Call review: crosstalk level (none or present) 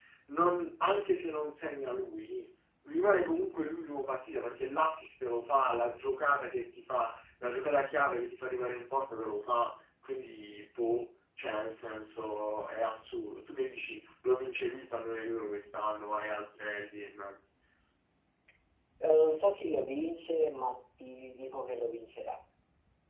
none